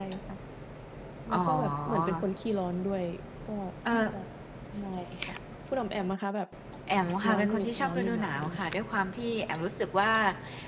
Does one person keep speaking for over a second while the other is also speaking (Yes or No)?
Yes